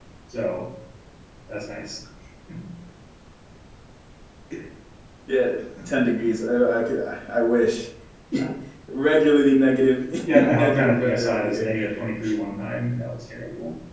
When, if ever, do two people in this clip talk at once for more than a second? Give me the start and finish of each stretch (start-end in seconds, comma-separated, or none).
10.3-11.7